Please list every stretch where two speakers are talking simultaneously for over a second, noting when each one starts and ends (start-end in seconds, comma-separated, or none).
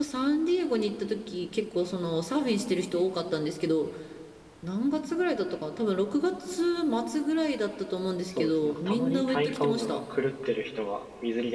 8.4-10.0